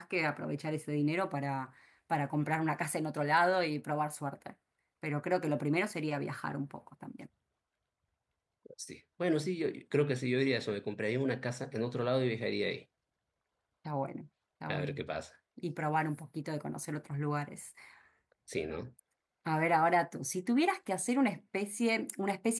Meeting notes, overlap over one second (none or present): none